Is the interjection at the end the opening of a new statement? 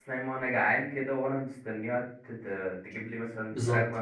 Yes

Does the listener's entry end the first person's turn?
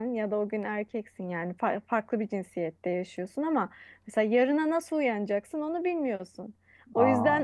No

